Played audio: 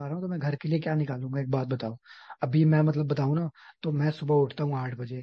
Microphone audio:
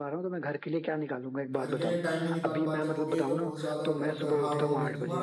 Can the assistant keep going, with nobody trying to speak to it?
No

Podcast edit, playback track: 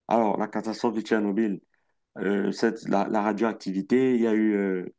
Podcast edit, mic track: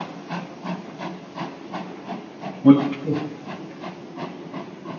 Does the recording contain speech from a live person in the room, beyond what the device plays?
Yes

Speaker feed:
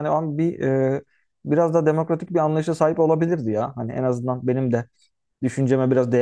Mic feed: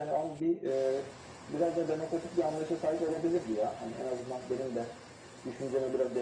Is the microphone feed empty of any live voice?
Yes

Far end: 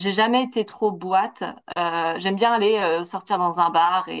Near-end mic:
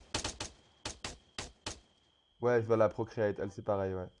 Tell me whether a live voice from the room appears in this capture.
Yes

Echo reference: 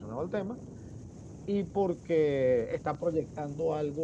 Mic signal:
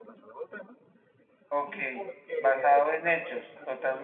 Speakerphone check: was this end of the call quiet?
No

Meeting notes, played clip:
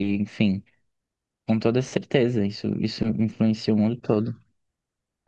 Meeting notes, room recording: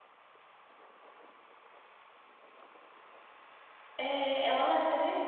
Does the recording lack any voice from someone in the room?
No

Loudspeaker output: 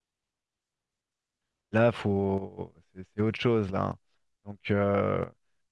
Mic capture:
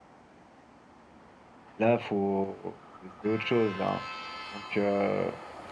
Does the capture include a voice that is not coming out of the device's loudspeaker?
No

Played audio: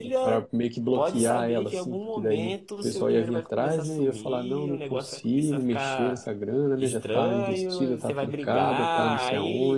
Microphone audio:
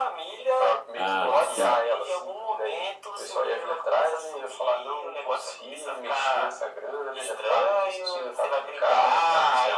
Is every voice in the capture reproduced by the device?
No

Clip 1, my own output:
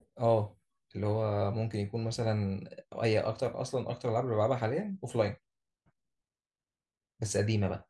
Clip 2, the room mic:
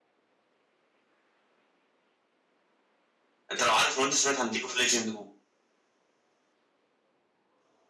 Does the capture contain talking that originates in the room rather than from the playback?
Yes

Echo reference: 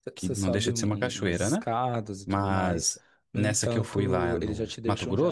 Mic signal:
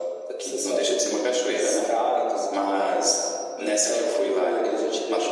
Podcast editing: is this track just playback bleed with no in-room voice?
Yes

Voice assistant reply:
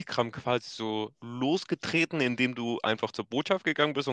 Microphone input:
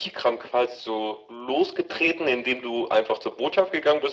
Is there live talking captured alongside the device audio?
No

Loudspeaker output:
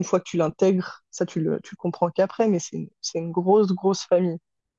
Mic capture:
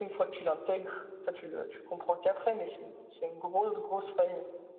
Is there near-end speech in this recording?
No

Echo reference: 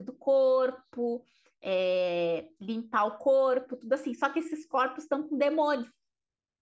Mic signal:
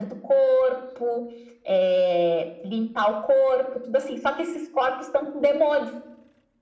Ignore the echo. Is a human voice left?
No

